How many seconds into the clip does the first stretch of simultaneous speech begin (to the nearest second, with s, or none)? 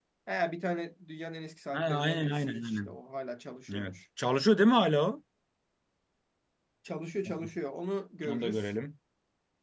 2 s